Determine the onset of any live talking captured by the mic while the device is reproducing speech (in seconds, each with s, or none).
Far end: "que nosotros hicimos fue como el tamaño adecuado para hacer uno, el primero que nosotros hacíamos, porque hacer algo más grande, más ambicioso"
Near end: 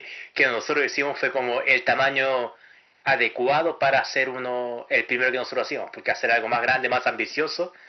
none